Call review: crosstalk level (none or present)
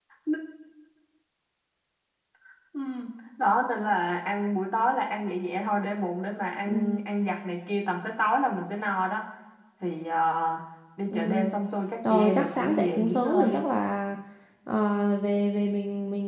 present